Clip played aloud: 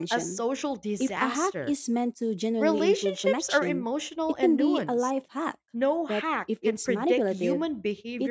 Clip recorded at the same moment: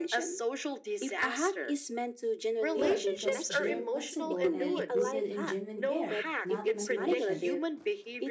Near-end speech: present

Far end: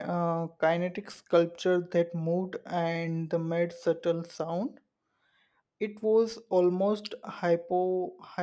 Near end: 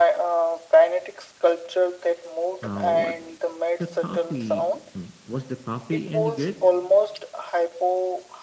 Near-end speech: present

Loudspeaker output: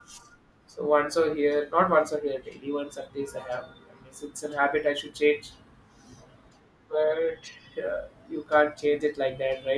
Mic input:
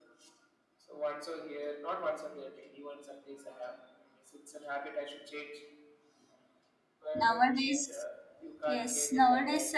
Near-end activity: present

